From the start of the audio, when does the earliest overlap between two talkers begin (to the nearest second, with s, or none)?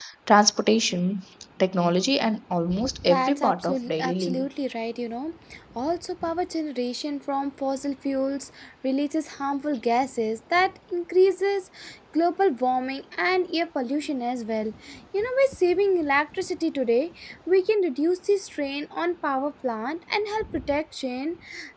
3 s